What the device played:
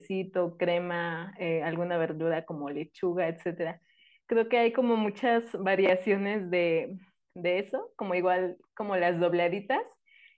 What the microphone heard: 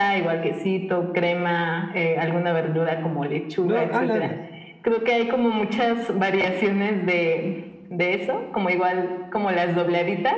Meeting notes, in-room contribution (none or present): present